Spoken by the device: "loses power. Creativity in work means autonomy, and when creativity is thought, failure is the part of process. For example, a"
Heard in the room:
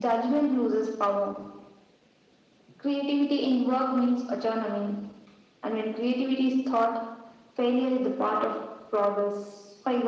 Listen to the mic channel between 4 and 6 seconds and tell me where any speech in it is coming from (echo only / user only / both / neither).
echo only